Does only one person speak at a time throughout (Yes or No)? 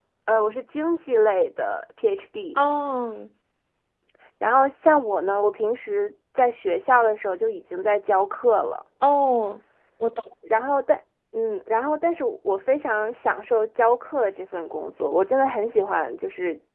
Yes